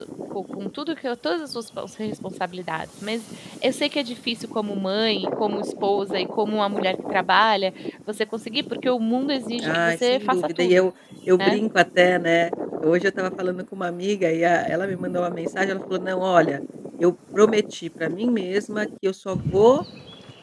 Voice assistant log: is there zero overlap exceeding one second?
No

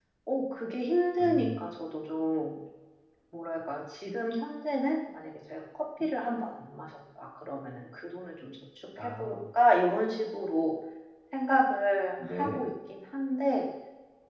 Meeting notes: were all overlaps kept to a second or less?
Yes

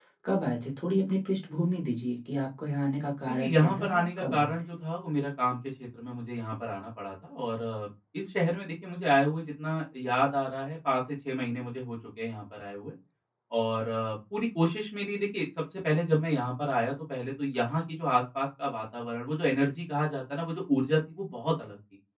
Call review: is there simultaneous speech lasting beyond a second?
Yes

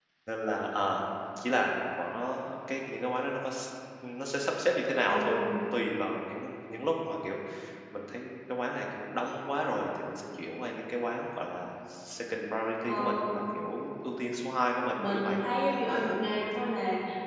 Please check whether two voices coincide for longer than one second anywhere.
No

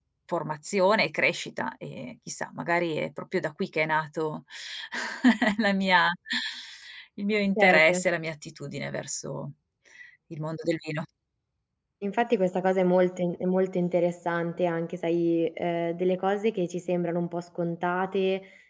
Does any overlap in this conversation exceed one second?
No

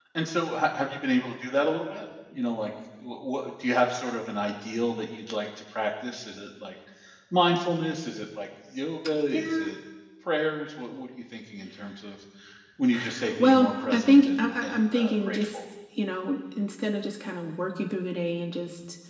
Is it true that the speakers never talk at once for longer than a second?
No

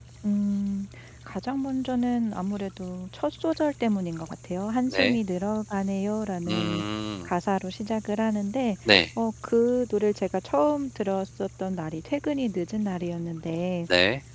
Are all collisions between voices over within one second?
Yes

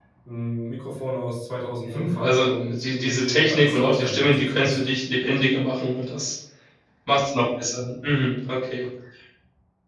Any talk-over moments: Yes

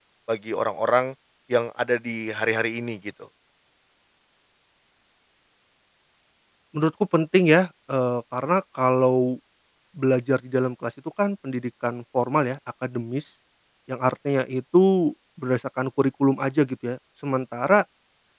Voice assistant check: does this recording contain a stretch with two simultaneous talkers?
No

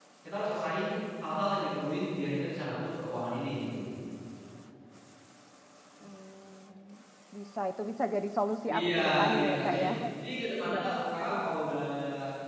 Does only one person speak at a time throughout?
No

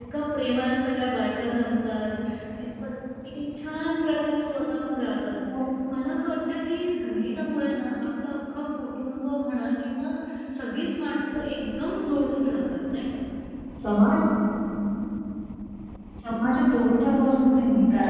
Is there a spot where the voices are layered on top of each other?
No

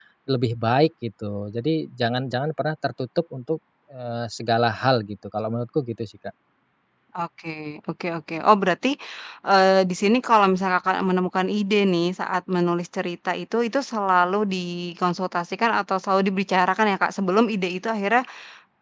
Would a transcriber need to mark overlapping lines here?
No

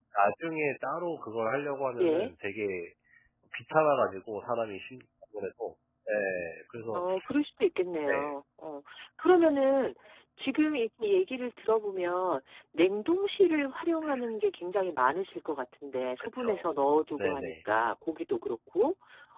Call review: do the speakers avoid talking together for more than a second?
Yes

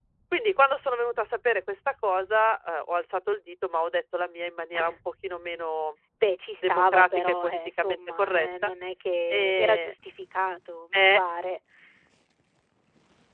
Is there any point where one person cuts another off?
Yes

